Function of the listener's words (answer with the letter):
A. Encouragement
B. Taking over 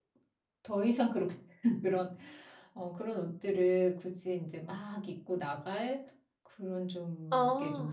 A